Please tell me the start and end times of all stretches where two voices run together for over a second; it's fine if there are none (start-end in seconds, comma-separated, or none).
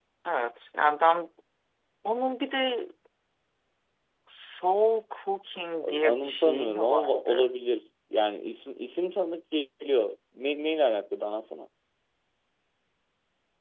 6.0-7.5